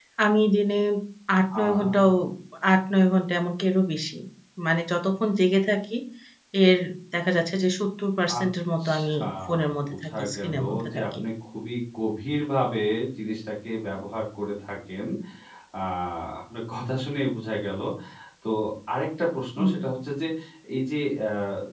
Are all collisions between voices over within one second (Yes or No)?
No